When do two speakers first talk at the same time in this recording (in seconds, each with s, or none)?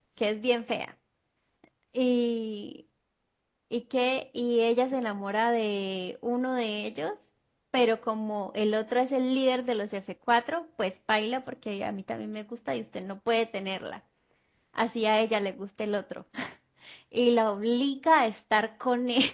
none